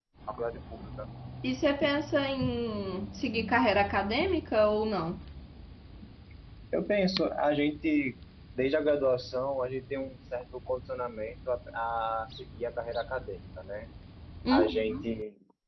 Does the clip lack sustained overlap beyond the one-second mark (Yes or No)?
Yes